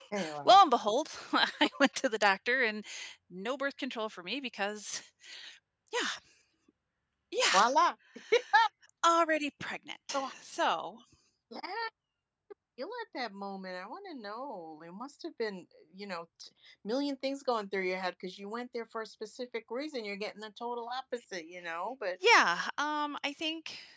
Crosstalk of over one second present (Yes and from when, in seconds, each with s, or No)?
No